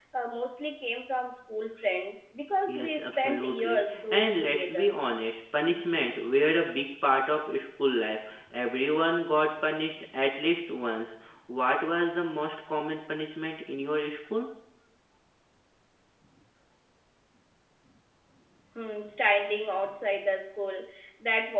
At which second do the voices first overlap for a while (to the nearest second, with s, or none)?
3 s